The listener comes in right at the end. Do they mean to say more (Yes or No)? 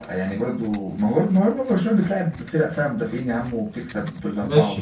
Yes